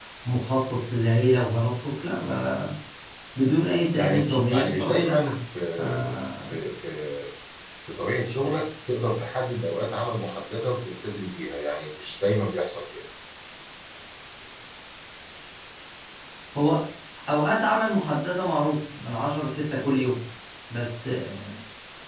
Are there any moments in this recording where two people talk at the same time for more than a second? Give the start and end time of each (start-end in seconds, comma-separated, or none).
4.0-5.3